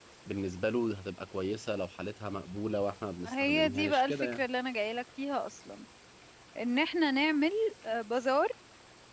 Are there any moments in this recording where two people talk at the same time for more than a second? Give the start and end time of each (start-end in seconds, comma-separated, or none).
3.2-4.4